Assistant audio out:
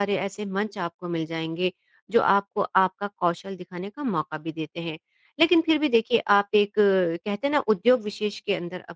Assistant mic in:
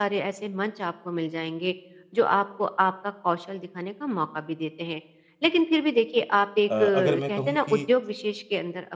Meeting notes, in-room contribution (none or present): present